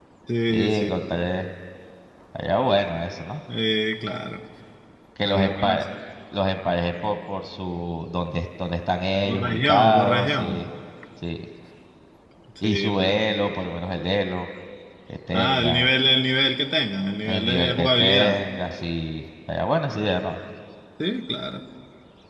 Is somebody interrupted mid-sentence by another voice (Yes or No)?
Yes